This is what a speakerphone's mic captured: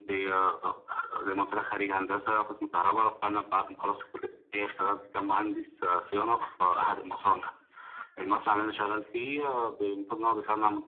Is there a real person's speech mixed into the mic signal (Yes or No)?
No